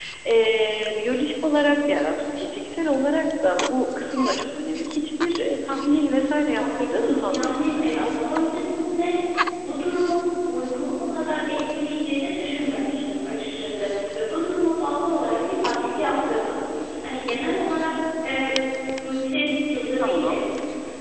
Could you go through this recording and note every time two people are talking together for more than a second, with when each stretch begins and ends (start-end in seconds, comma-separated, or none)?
6.6-8.0